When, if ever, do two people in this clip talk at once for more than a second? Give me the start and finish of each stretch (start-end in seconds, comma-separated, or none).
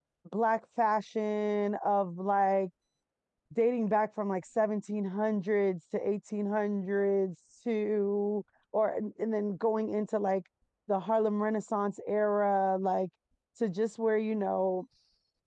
none